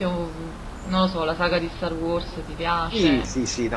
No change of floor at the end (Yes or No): No